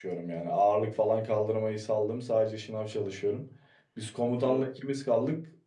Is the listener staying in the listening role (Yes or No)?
Yes